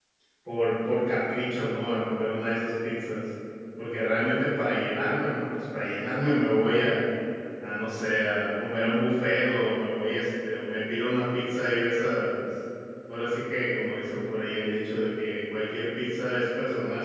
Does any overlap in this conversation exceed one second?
No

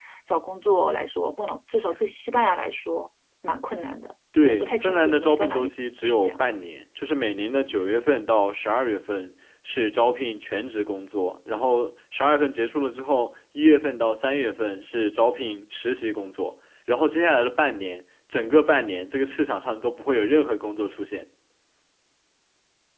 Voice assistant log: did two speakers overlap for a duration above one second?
Yes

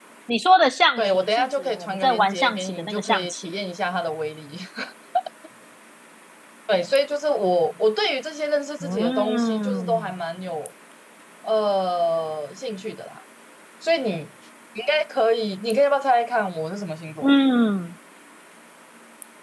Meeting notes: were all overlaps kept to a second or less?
No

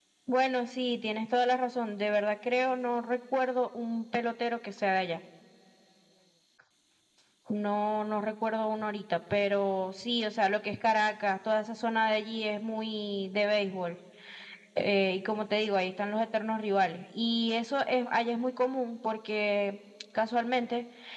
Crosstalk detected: No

